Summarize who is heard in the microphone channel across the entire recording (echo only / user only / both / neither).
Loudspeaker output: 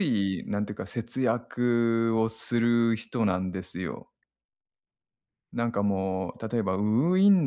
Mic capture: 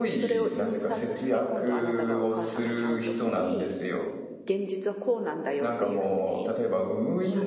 both